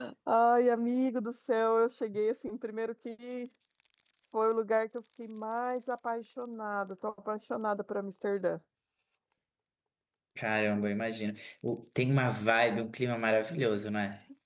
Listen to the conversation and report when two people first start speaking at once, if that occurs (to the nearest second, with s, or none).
none